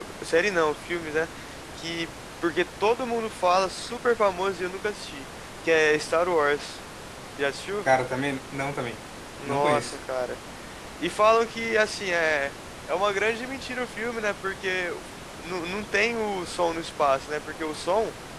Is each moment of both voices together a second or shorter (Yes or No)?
Yes